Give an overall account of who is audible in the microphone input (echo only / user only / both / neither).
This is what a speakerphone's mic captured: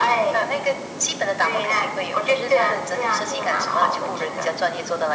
echo only